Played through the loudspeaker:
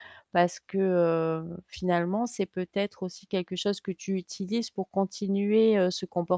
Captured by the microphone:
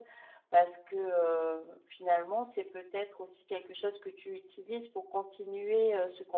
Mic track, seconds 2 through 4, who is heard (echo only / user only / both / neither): echo only